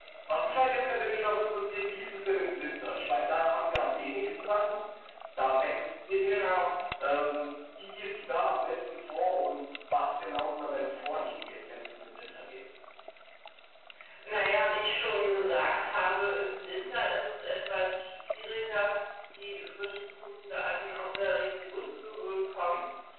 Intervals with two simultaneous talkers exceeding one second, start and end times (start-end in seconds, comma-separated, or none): none